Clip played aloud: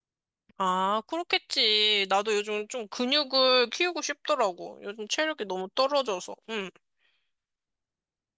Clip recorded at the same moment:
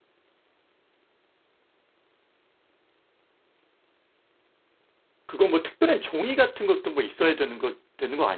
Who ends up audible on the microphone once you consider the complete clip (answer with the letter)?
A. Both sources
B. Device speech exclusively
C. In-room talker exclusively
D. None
C